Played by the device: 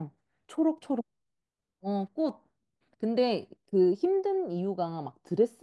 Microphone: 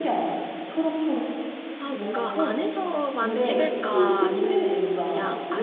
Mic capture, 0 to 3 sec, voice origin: both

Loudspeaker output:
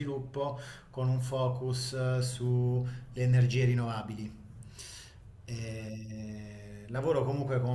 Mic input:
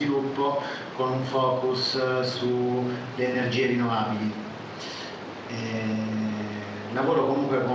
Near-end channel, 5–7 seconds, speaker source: echo only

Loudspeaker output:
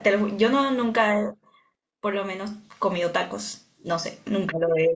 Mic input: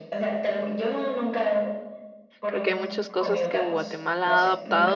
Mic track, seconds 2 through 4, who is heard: both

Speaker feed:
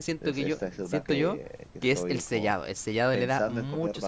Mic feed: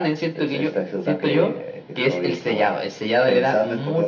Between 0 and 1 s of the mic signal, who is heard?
echo only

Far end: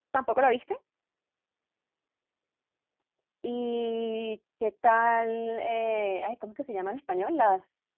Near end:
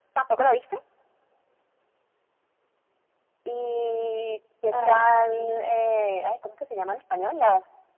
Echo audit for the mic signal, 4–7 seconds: both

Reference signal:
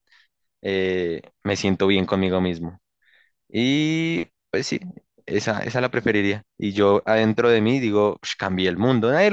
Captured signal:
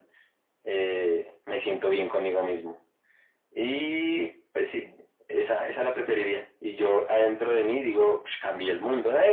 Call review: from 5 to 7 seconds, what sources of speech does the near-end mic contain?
echo only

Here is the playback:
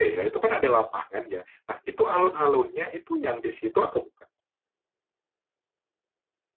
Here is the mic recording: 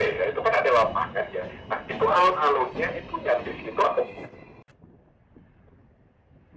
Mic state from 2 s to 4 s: echo only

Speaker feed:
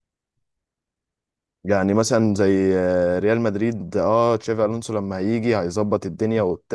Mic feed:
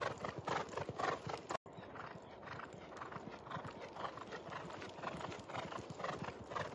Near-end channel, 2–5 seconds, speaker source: neither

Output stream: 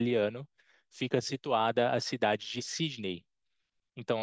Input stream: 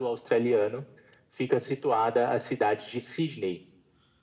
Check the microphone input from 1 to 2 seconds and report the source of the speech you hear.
echo only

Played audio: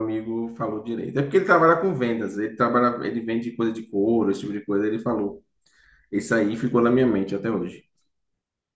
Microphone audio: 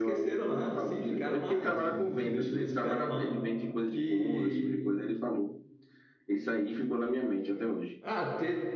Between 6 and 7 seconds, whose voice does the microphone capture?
echo only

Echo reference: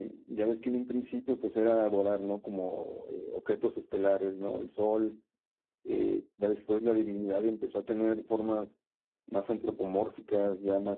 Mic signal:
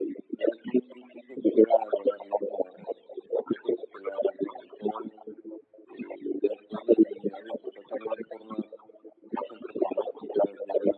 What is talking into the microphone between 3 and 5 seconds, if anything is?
echo only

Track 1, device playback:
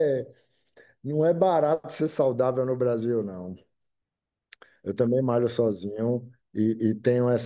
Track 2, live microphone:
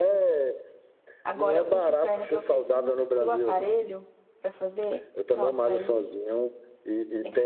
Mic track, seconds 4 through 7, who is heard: both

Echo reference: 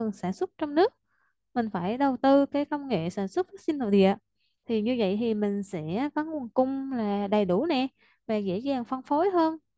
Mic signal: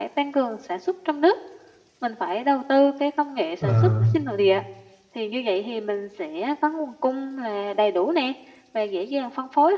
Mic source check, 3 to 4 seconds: both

